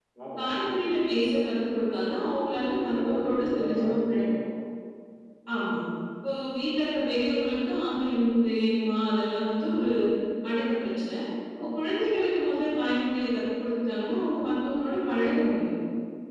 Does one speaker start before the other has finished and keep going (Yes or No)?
Yes